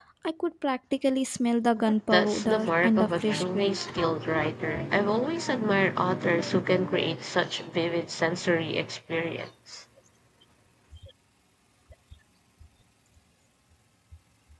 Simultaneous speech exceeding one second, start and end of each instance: 2.1-3.8

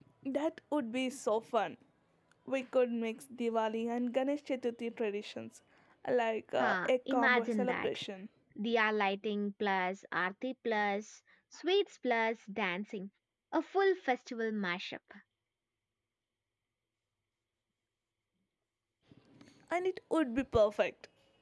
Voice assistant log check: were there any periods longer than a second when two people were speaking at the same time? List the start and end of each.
6.6-7.9

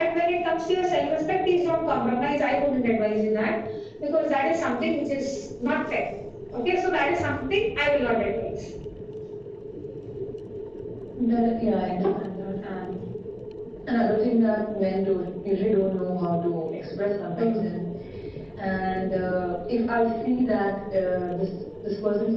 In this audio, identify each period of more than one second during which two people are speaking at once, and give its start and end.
none

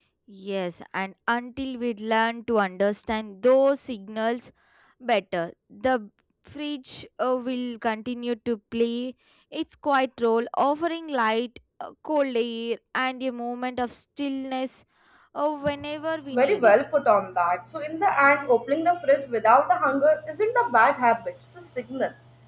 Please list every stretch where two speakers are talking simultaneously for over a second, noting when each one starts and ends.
none

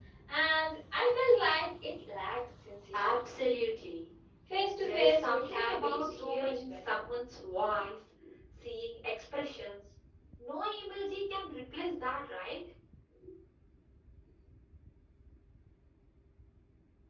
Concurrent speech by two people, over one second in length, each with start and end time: 4.8-7.0

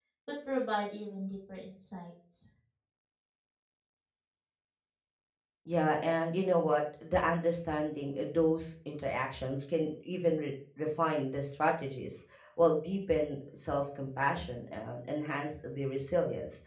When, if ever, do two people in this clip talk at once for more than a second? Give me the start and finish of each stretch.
none

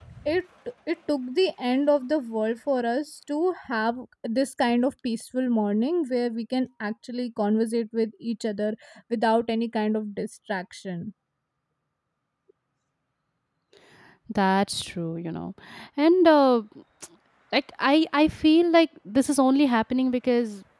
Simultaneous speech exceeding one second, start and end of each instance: none

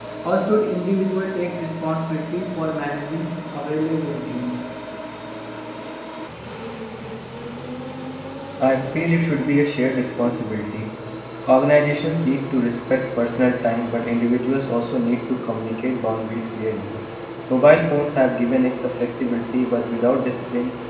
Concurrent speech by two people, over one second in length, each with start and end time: none

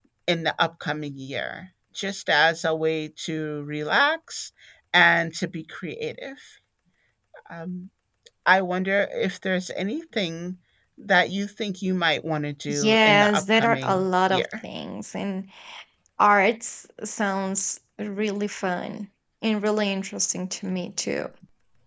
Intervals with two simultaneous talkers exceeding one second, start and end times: 12.7-14.4

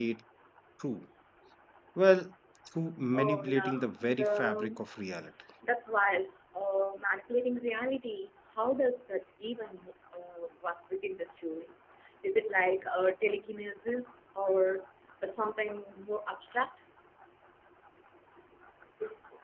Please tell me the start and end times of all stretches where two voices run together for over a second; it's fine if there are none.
3.1-4.8

